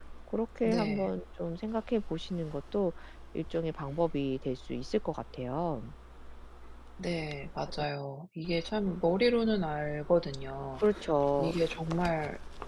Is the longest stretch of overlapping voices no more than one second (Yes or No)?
Yes